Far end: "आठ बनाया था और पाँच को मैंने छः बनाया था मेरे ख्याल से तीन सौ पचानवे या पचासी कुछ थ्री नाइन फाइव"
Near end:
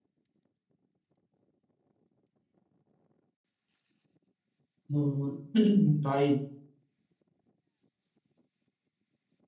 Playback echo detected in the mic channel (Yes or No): No